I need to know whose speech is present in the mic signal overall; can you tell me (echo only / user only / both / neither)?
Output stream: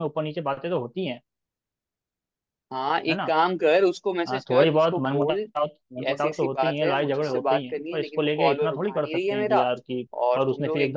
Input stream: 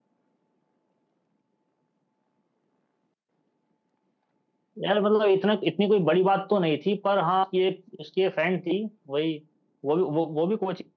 user only